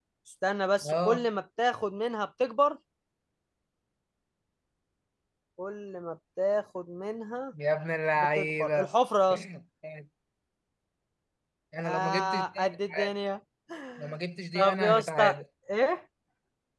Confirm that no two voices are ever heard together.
No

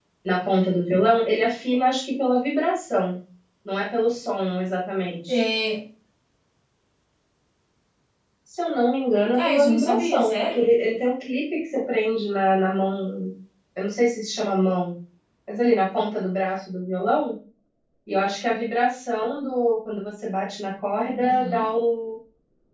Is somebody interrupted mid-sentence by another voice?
Yes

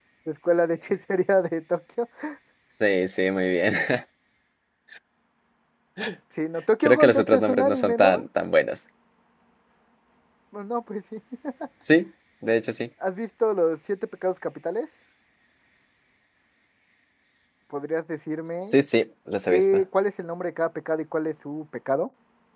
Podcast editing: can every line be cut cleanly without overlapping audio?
No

